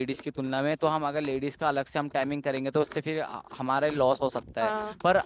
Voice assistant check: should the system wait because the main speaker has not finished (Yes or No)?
Yes